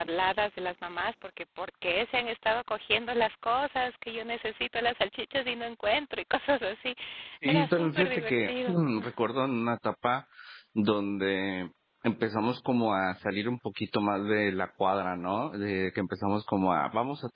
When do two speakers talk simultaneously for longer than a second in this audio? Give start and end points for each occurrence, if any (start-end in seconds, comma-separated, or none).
7.5-8.8